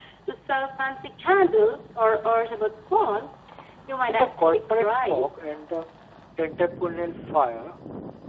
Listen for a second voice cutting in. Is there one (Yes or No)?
Yes